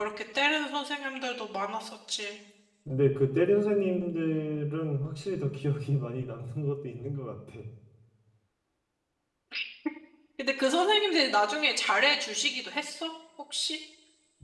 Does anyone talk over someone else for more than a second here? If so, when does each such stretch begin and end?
none

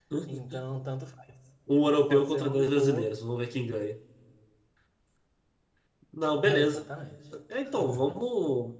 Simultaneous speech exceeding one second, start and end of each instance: 1.9-3.1

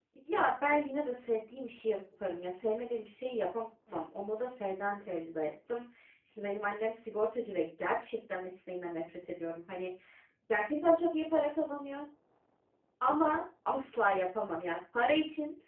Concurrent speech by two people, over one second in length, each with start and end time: none

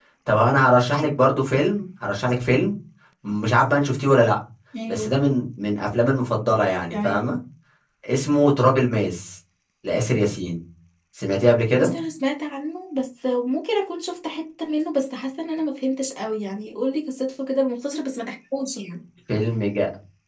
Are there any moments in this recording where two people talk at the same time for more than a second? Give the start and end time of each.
none

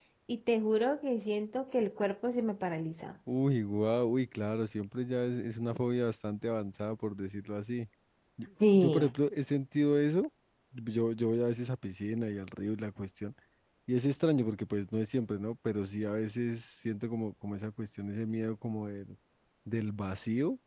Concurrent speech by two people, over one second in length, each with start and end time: none

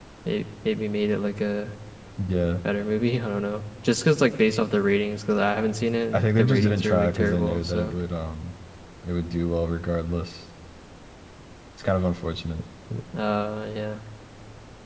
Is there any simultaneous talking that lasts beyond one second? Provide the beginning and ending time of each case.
6.1-8.0

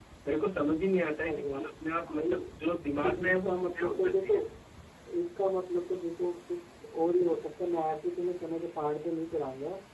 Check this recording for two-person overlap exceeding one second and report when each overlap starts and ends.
3.0-4.3

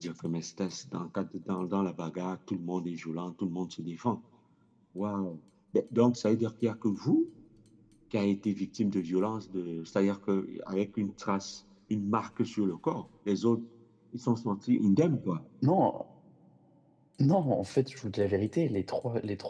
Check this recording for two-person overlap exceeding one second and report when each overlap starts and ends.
none

